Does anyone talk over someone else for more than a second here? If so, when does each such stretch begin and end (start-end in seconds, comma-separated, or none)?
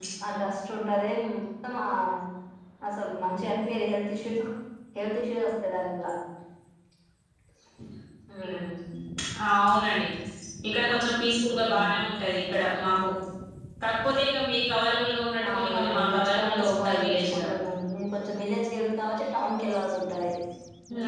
15.5-17.5